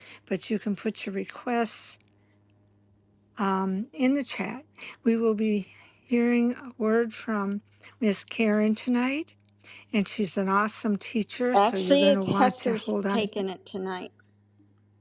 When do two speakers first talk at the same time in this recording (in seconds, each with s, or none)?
11.5 s